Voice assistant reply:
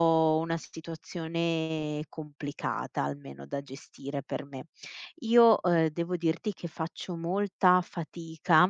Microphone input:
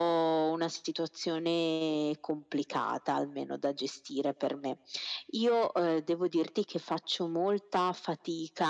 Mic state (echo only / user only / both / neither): echo only